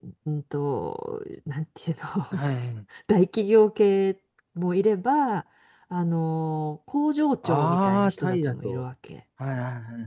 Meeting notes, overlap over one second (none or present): present